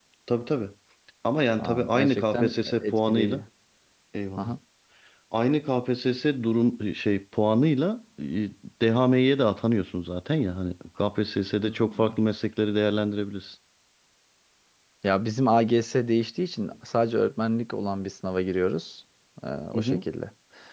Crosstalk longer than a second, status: present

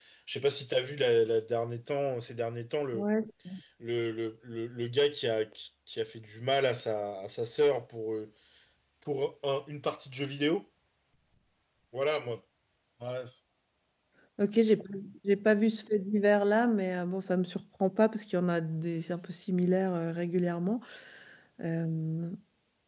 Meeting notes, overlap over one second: none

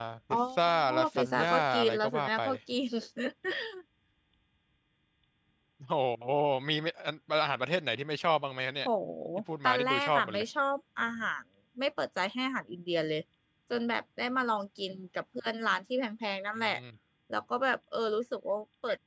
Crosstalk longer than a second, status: present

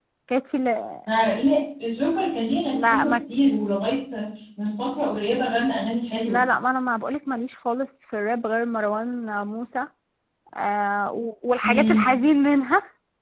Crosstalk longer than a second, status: none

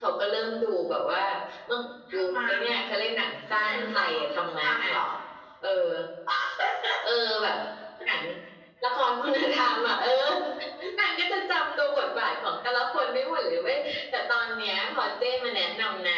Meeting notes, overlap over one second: present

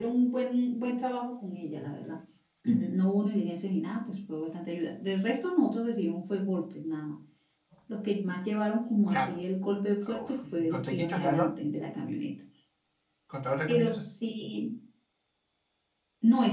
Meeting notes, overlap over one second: present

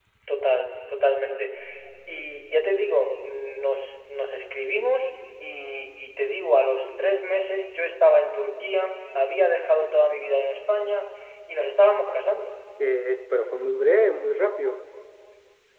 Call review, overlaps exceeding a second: none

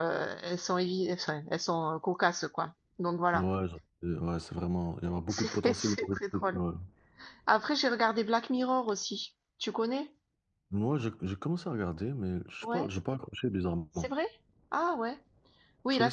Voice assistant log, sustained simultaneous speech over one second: present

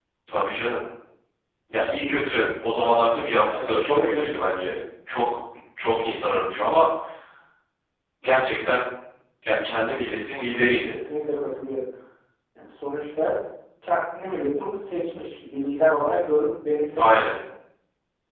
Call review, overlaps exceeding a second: present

